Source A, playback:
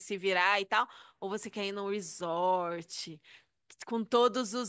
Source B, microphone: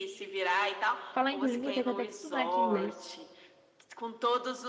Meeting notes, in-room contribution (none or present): present